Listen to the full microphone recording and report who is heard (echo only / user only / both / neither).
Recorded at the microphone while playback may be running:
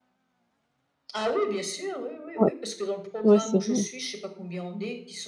both